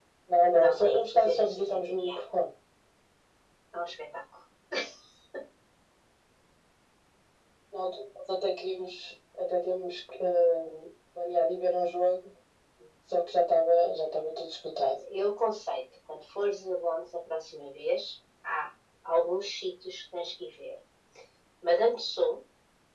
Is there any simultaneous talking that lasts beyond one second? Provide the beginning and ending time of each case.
0.5-2.2

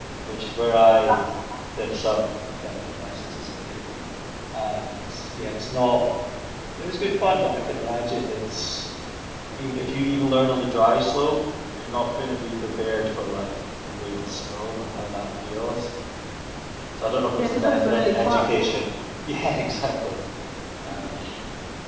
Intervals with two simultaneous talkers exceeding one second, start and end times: 17.4-18.6

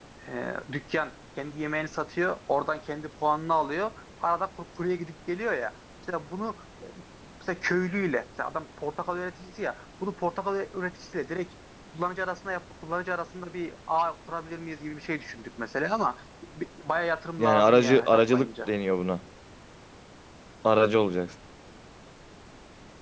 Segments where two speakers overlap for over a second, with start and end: 17.4-18.7

